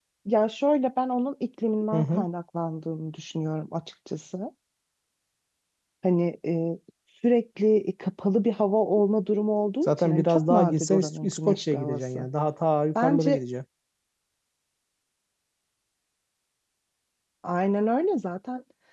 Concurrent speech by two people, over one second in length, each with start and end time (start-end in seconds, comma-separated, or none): 9.8-12.3